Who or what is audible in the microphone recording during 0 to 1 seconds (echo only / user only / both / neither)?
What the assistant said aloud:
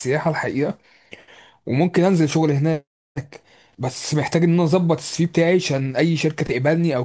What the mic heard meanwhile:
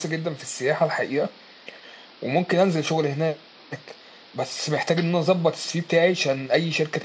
echo only